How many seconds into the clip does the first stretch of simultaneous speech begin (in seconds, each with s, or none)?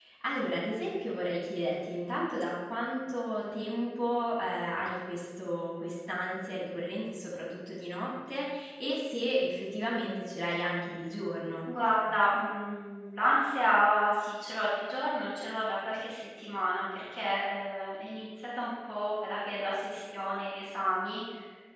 none